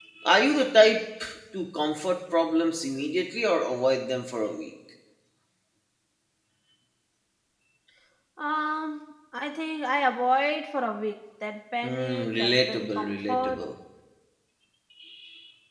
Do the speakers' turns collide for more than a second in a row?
Yes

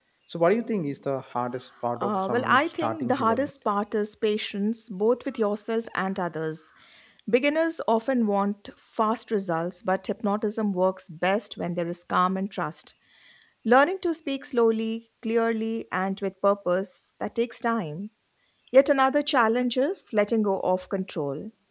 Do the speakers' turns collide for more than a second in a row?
Yes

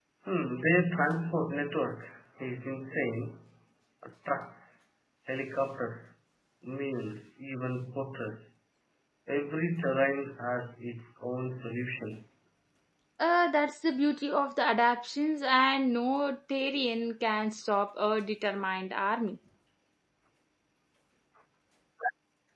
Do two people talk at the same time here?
No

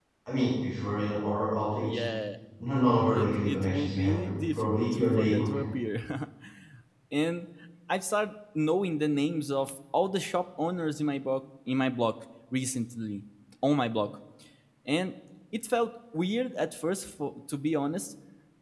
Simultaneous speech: Yes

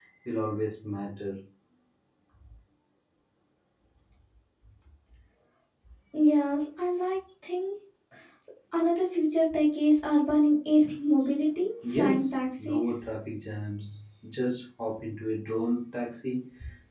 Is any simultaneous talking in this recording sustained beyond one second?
Yes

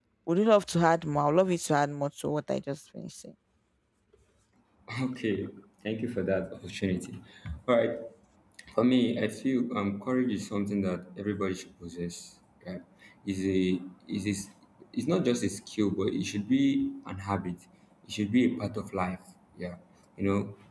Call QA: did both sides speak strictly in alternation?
Yes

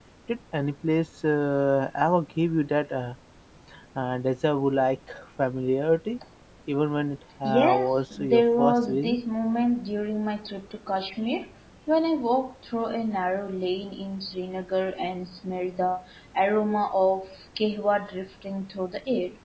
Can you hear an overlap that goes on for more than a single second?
Yes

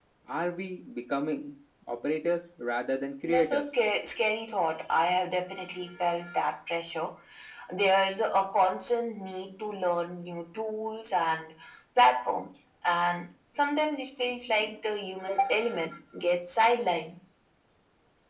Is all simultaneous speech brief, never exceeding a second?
Yes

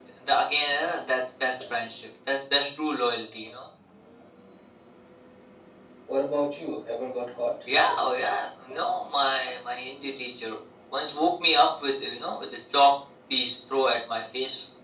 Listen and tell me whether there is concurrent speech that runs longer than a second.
No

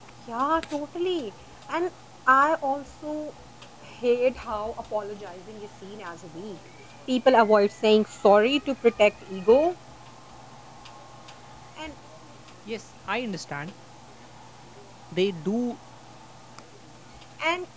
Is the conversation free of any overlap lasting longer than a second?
Yes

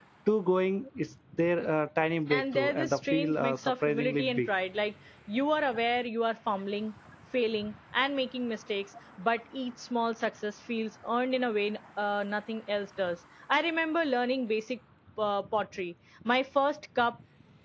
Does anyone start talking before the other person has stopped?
Yes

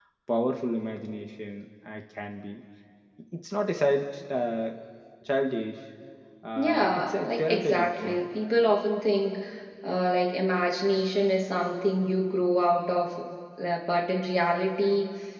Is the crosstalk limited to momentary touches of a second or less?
No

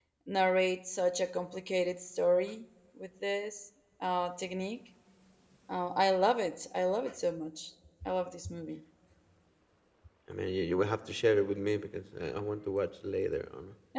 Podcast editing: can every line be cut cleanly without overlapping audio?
Yes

